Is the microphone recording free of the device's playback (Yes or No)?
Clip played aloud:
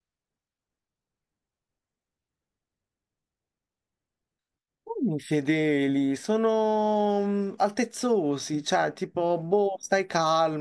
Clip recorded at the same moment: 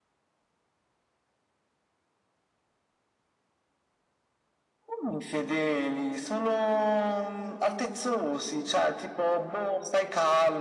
No